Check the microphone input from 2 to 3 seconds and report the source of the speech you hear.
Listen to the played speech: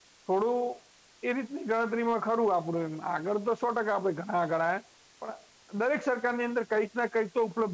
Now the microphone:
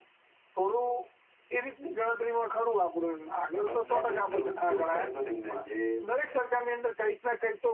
echo only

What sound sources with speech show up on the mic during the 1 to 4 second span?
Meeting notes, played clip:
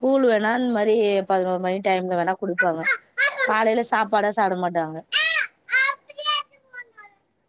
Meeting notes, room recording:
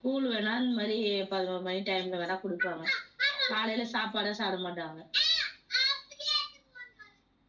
echo only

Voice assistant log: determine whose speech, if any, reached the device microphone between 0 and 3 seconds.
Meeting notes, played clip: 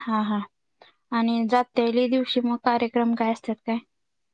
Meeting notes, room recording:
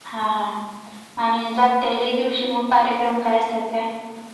echo only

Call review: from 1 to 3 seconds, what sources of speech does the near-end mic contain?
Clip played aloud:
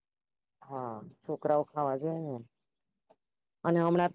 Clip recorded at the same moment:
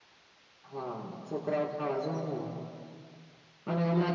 echo only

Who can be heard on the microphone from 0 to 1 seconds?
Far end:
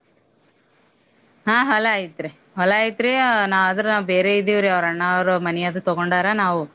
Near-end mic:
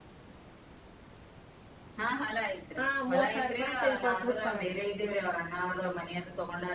neither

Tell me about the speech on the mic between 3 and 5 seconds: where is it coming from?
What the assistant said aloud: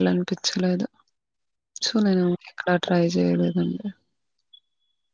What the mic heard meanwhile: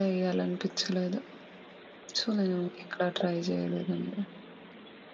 echo only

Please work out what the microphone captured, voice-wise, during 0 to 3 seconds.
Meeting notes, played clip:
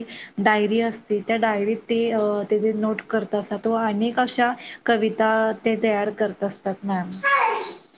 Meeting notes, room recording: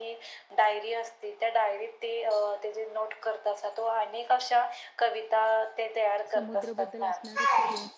echo only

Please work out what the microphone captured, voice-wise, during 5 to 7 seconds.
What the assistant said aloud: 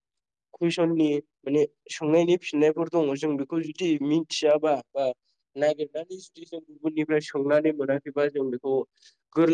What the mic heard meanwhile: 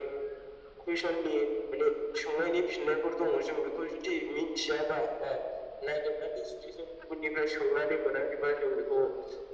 echo only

